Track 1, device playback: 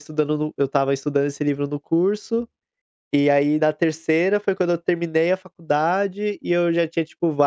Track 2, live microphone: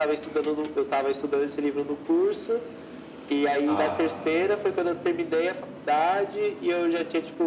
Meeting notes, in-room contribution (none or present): present